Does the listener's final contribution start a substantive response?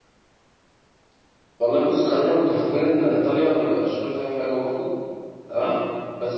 No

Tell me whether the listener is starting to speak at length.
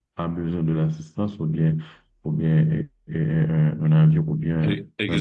Yes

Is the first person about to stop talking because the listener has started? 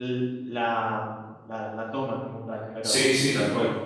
Yes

